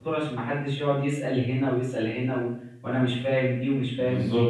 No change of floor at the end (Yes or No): Yes